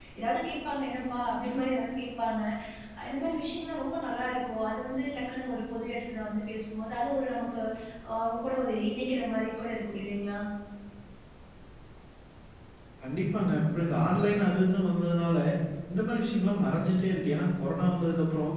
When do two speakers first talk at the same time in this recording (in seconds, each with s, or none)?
none